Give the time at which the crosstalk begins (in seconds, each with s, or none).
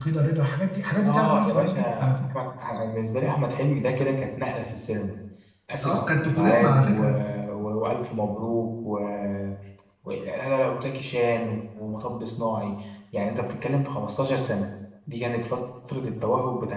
1.1 s